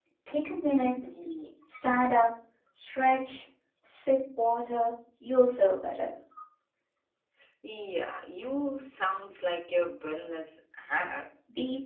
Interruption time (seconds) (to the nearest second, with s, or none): none